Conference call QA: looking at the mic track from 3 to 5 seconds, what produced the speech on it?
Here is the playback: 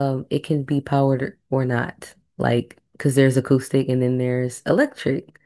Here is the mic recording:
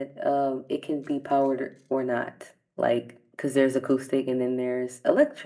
echo only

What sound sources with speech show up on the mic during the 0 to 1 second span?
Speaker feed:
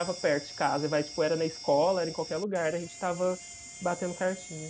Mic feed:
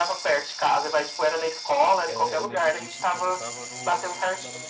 echo only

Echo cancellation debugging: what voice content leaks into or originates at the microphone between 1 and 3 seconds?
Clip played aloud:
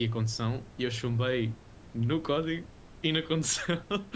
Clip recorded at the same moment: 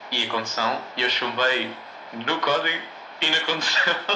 echo only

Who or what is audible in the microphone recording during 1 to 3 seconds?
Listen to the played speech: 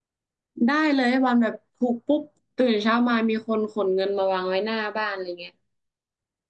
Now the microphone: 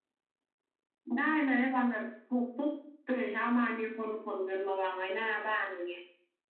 echo only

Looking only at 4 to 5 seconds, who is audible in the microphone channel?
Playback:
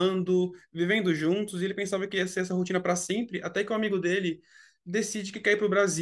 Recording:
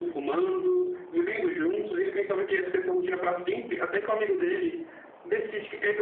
echo only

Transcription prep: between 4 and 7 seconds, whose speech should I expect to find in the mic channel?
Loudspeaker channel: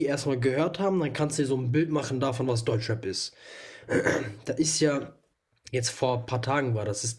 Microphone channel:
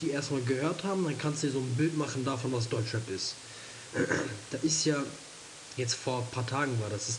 echo only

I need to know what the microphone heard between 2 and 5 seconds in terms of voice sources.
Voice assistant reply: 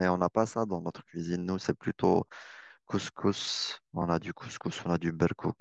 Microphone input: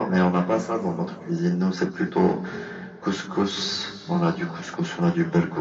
echo only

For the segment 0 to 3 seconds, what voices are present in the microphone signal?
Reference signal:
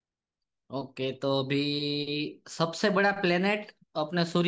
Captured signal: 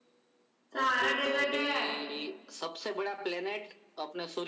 both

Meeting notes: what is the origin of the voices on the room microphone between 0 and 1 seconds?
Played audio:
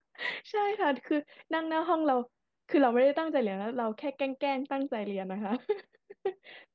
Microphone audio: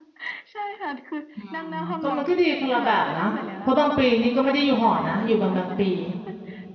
echo only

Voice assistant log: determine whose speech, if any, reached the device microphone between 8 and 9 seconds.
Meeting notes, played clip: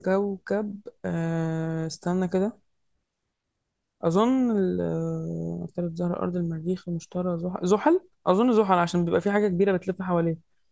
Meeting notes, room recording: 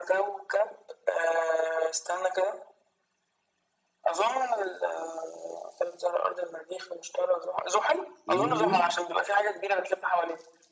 both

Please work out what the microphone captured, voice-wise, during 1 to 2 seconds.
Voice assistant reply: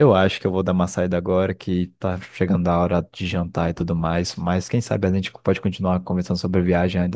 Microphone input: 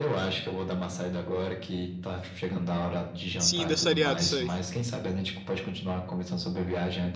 echo only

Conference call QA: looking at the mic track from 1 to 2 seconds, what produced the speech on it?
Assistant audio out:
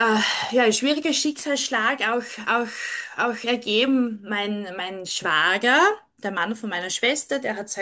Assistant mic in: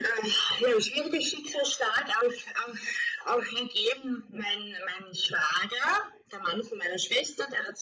echo only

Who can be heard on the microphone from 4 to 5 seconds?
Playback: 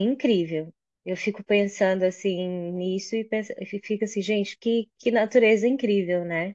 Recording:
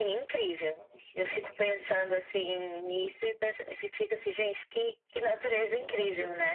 echo only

